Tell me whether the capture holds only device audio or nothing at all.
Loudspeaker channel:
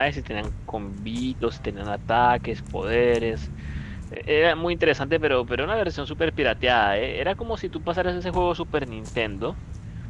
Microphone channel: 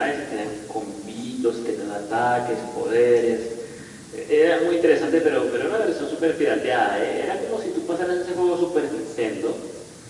Yes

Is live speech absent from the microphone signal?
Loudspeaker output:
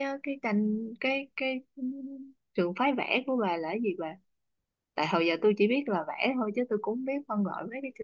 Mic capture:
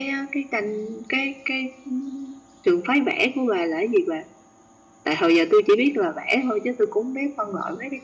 Yes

